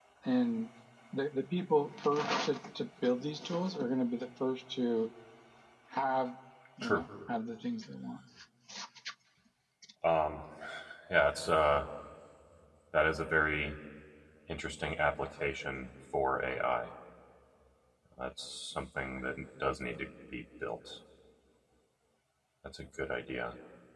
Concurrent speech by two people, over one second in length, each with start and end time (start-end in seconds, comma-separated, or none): none